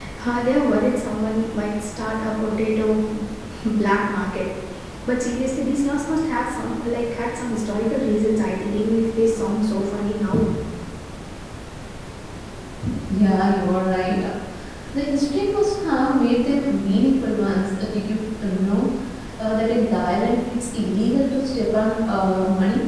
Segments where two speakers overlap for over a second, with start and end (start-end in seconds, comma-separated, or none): none